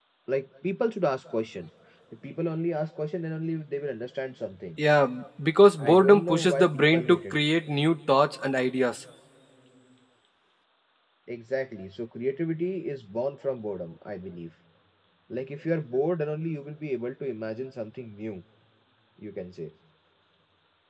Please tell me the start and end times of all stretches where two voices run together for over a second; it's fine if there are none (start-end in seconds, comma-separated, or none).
5.8-7.4